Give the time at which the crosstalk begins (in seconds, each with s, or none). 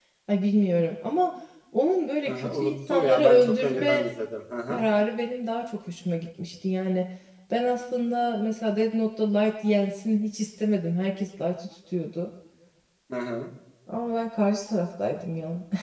2.3 s